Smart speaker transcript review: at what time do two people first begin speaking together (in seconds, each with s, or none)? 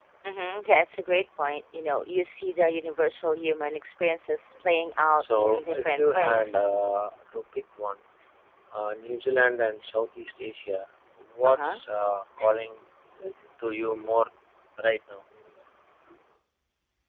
5.2 s